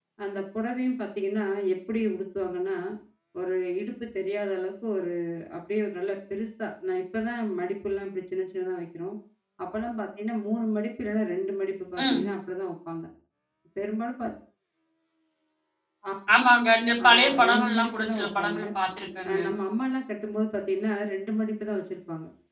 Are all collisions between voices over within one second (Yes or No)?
No